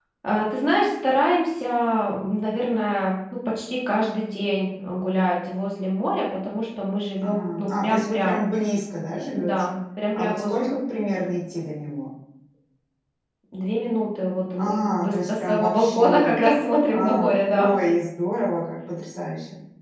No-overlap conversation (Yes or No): No